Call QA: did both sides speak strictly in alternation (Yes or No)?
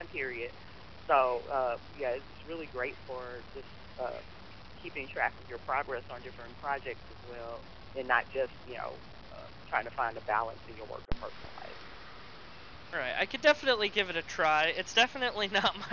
Yes